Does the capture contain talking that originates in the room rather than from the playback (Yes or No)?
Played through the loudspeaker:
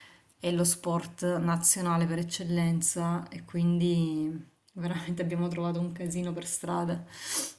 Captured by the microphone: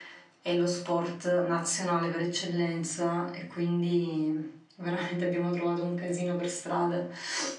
No